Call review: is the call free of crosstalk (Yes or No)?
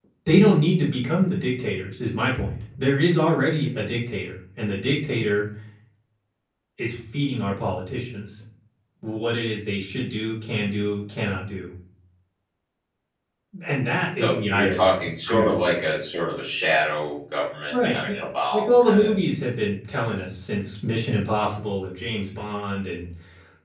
No